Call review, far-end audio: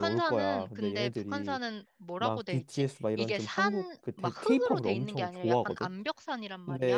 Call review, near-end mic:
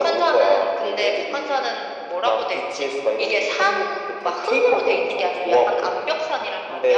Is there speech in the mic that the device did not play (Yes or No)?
No